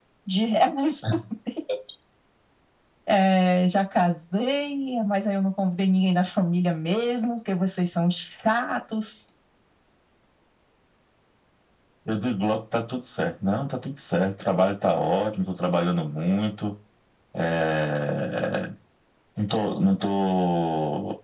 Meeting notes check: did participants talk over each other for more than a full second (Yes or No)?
No